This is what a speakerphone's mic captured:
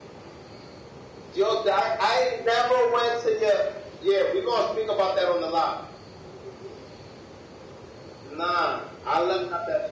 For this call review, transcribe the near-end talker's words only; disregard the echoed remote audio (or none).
none